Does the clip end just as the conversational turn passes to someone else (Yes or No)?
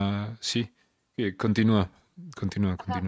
Yes